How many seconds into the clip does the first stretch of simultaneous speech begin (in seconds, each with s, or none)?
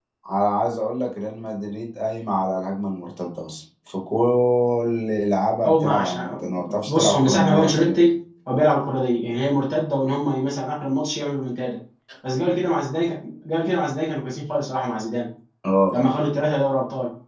5.6 s